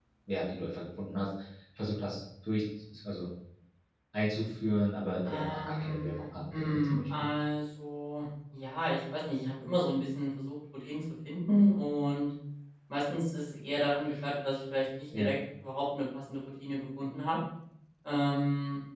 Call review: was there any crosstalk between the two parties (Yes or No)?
Yes